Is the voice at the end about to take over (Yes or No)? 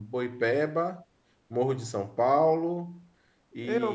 Yes